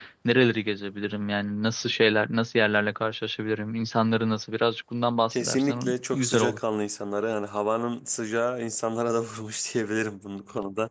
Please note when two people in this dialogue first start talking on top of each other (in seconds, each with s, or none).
5.3 s